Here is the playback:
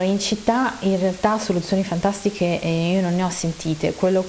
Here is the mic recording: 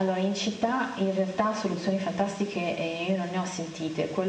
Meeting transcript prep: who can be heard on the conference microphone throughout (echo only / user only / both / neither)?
echo only